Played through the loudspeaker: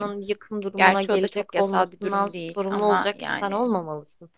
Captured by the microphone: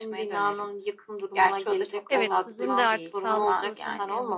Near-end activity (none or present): present